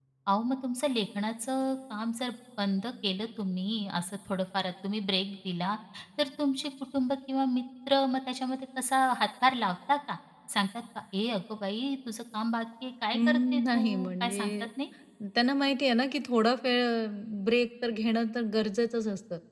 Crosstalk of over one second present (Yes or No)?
Yes